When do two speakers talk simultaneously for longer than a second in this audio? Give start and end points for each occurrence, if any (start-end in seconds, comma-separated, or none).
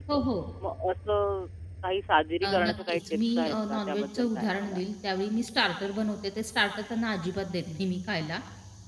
2.5-4.8